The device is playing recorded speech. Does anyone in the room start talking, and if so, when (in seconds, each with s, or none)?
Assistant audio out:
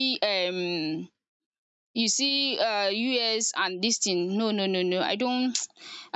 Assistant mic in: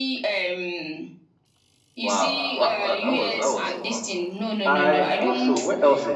2.0 s